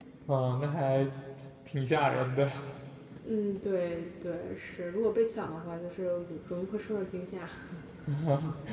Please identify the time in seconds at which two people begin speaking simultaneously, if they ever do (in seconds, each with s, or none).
none